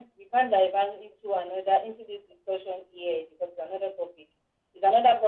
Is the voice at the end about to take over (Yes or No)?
No